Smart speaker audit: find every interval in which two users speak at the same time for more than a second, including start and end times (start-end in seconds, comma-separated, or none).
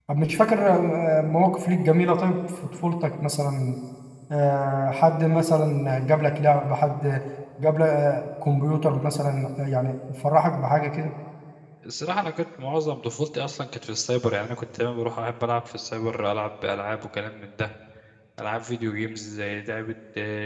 none